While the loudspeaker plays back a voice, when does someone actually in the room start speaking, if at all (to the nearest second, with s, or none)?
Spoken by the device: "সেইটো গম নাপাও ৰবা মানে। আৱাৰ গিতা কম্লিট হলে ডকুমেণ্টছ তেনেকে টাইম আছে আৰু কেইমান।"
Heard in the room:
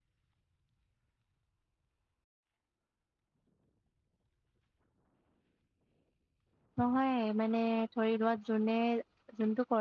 7 s